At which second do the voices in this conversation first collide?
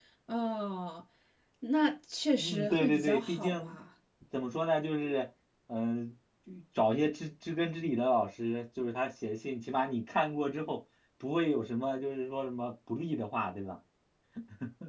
2.4 s

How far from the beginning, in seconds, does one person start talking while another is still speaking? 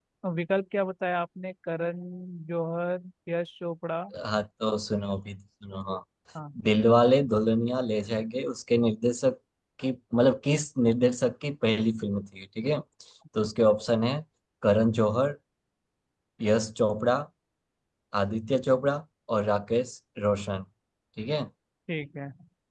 none

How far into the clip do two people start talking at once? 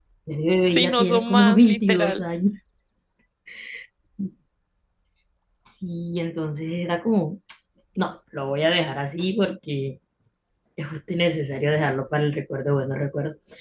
0.7 s

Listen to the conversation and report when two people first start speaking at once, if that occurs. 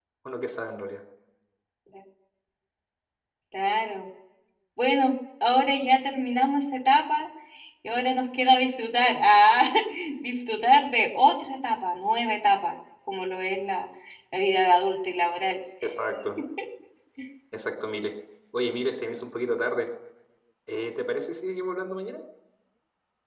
none

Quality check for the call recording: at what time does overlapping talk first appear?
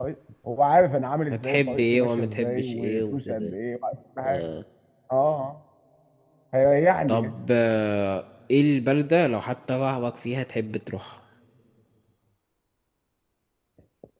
1.3 s

